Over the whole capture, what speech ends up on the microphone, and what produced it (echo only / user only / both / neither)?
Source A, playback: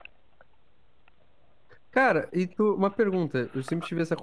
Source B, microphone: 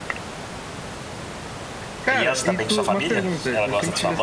both